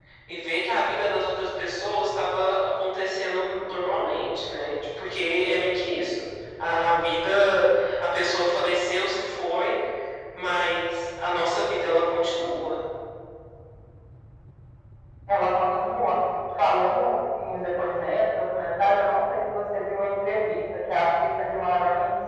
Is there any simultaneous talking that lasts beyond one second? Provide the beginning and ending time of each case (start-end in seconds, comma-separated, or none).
none